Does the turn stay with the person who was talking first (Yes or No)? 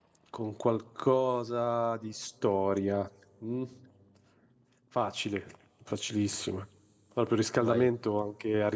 Yes